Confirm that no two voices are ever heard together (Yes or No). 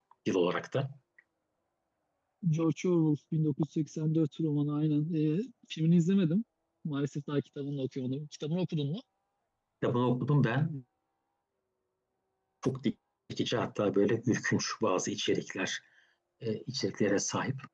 Yes